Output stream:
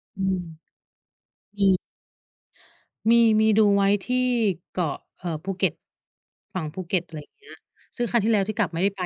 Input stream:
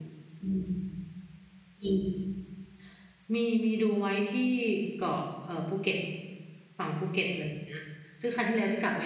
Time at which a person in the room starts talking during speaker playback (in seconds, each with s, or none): none